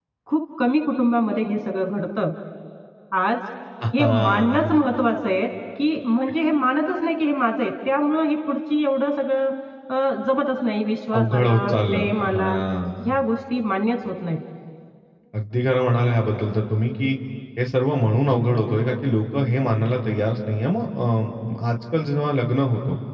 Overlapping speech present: Yes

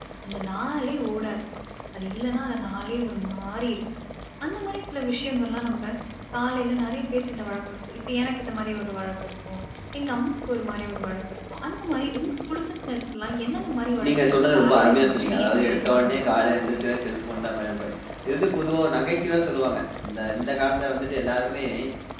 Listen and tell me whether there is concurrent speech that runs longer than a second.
Yes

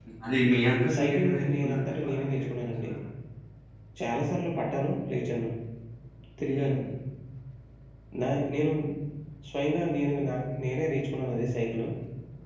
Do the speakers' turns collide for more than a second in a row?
Yes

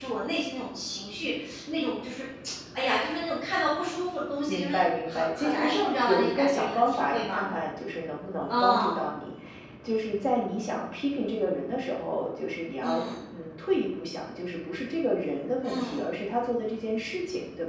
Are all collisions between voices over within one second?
No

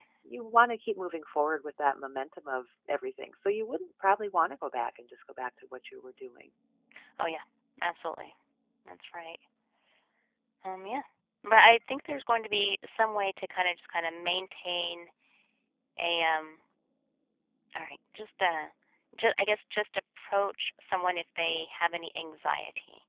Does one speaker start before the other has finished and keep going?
No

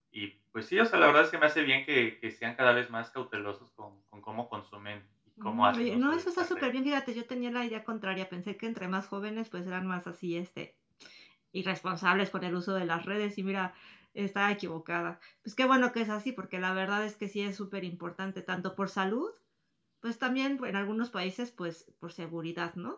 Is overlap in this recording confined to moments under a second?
No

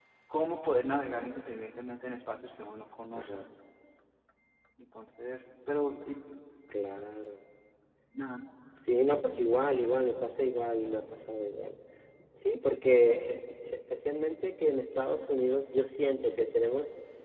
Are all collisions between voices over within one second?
Yes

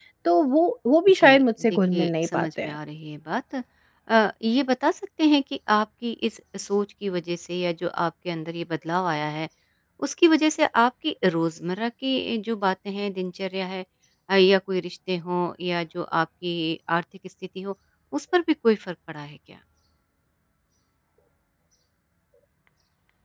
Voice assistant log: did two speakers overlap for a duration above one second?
Yes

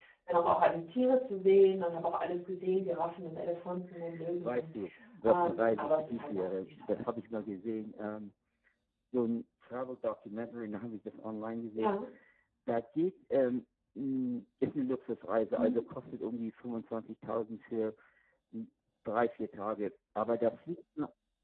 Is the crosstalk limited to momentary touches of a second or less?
No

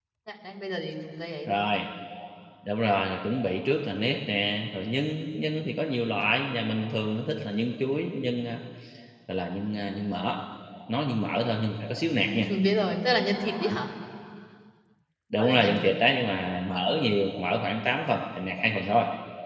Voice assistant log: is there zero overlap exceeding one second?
Yes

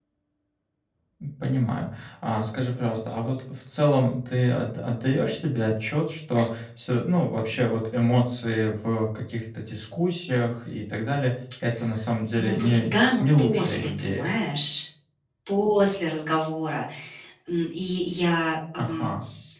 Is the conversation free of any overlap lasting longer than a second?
No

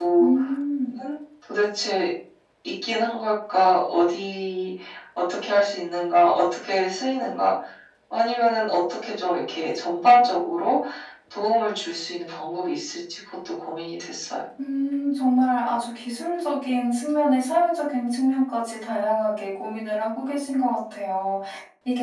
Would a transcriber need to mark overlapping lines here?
No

